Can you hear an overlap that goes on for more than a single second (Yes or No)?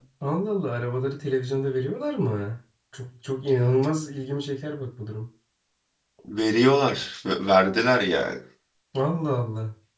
No